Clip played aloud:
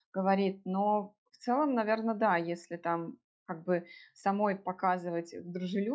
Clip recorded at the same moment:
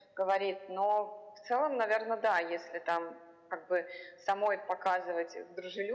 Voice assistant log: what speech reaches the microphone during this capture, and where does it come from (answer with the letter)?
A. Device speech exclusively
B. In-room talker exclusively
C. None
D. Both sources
A